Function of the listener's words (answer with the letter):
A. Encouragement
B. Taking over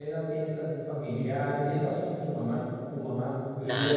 B